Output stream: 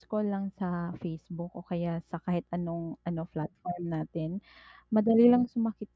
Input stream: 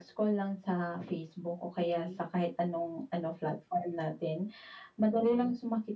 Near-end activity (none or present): present